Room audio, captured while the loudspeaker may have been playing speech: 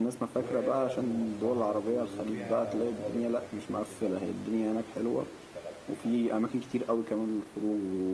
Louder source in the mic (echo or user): echo